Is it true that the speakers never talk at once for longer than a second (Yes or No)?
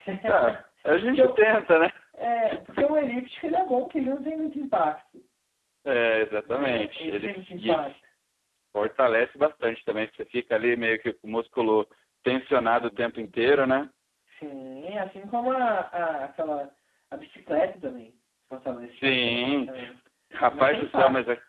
No